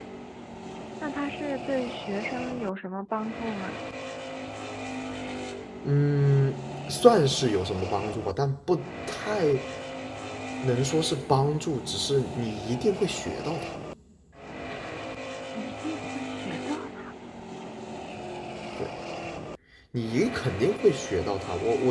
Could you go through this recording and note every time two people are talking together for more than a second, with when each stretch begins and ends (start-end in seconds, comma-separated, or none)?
none